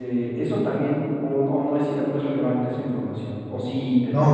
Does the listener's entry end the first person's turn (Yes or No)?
Yes